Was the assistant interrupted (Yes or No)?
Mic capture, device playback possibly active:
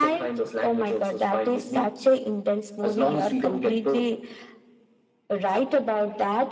No